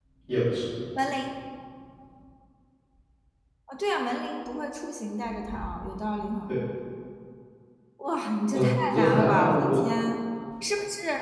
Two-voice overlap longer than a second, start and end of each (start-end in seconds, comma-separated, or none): 8.5-9.8